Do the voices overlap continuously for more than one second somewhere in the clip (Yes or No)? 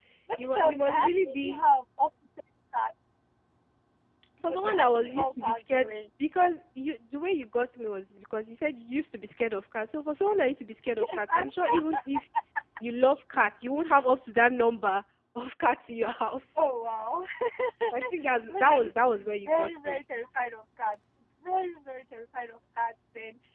Yes